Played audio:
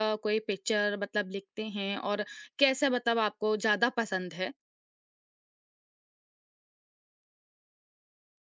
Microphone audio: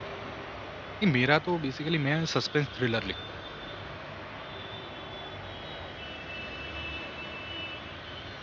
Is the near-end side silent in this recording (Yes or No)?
No